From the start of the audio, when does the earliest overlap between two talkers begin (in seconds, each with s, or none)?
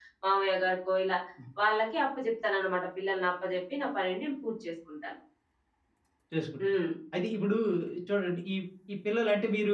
none